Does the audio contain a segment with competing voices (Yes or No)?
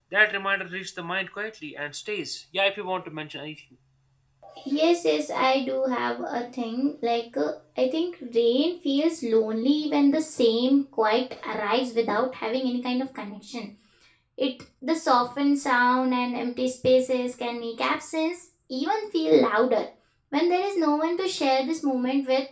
No